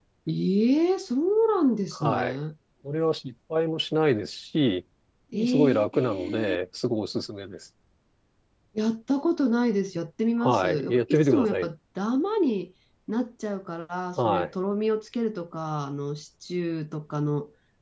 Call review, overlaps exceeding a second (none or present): present